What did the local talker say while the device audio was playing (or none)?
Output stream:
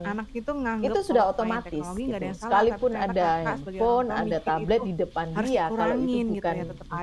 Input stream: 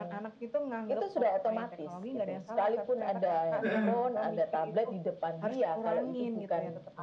Heeh.